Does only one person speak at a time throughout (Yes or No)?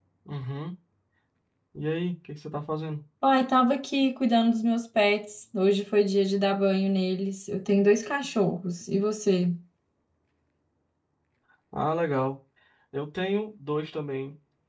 Yes